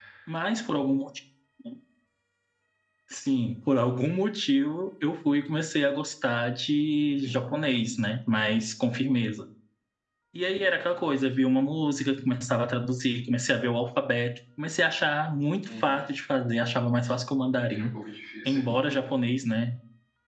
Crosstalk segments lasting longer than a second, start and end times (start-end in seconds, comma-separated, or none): none